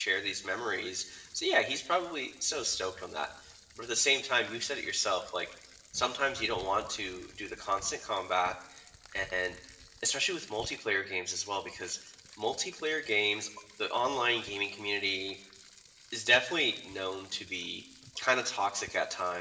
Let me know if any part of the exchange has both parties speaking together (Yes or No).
No